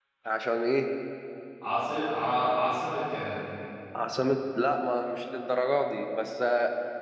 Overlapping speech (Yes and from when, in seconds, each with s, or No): No